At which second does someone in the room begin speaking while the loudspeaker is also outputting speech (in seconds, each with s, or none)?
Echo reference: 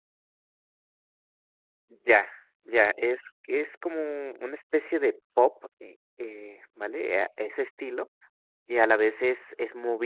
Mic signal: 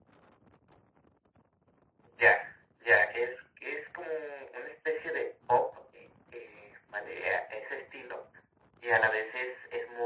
none